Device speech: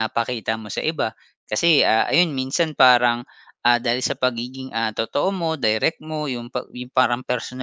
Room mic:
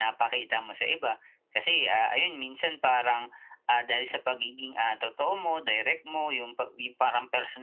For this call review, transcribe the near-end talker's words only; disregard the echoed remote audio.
none

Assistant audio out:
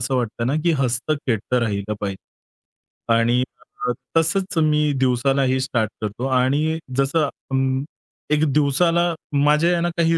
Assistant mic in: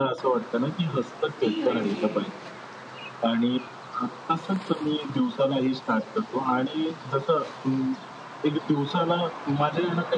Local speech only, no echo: ती घडली आहे.

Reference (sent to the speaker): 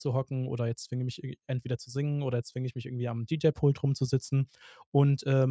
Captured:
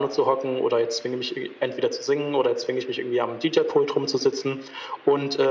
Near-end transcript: none

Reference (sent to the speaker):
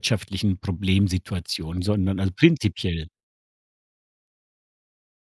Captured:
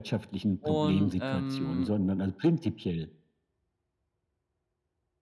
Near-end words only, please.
Und, ähm,

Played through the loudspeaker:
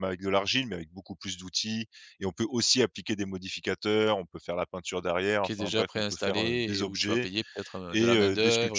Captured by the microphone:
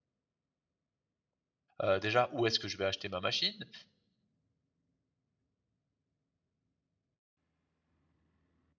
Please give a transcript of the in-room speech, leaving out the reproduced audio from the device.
Heu, déjà, où est-ce que je vais acheter ma machine?

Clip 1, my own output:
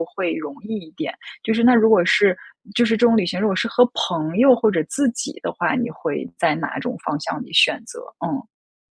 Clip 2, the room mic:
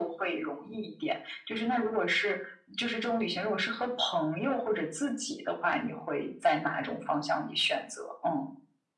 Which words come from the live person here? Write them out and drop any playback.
none

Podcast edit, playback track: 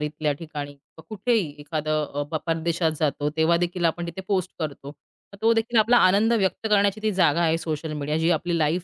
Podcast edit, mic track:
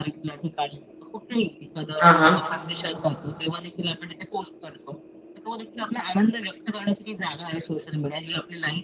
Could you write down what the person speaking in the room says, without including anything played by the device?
हां, हां.

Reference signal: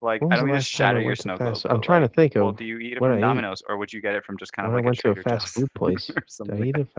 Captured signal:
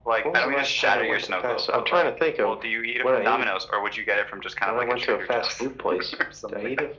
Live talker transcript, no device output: none

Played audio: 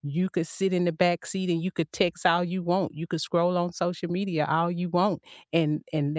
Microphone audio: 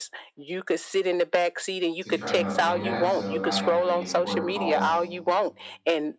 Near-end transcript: to try to avoid that. So, if I have any important calls,

